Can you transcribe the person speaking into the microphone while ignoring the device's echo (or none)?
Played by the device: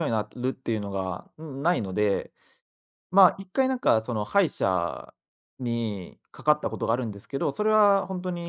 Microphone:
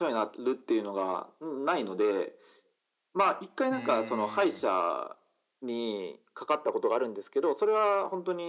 うーん。